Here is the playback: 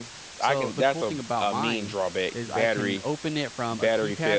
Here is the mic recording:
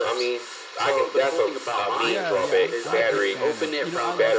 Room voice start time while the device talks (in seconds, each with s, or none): 2.0 s